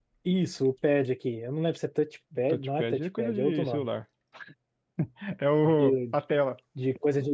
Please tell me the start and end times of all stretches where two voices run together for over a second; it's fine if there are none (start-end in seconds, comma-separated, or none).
2.5-3.9